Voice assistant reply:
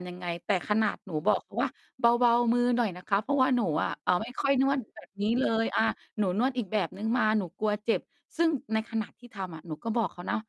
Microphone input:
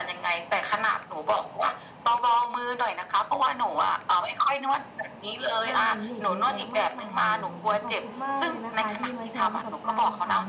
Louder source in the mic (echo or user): echo